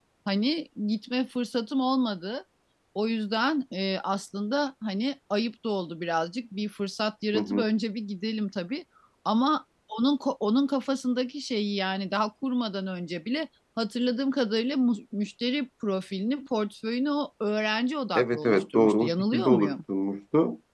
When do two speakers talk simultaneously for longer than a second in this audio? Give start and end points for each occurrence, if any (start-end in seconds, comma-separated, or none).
18.1-19.8